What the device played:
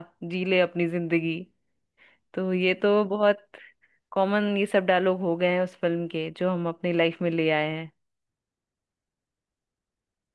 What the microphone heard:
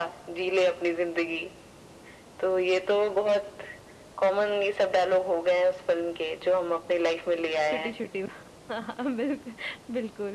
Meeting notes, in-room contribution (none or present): present